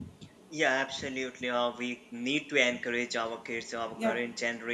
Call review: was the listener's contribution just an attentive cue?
Yes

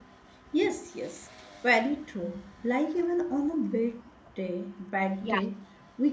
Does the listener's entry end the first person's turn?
No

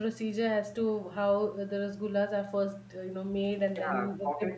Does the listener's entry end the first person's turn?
Yes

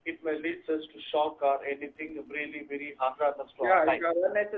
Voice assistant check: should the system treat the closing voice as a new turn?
Yes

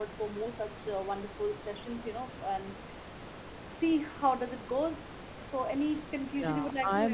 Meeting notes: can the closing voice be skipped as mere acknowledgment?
No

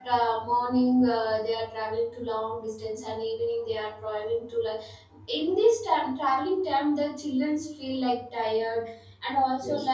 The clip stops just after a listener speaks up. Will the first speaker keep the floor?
Yes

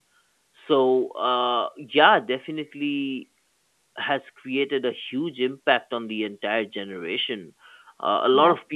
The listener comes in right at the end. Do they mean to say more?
No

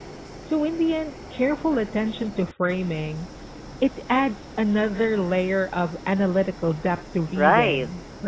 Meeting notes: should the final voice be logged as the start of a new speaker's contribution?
Yes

